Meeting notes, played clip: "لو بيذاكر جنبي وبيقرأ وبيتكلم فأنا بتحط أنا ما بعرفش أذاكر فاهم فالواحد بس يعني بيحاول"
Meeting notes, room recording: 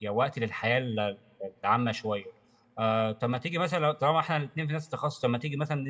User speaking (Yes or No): Yes